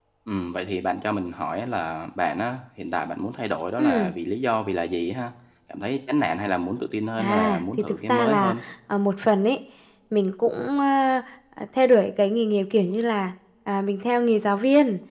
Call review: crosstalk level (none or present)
present